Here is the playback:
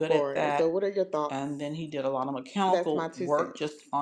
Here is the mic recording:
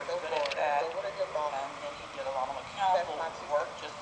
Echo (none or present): present